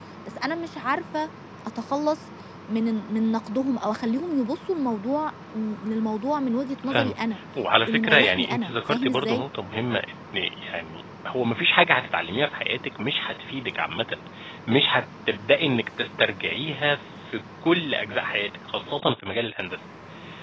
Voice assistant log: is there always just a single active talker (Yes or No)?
No